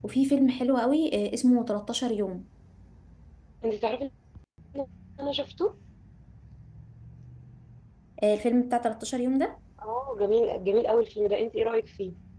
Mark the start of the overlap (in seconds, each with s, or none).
none